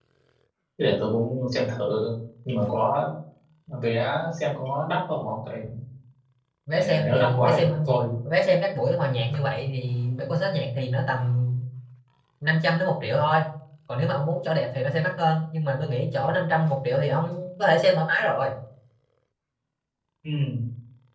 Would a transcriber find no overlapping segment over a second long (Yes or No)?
No